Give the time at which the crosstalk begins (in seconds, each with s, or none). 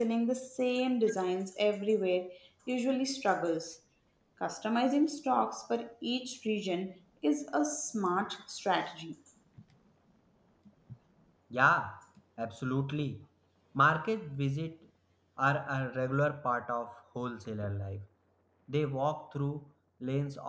none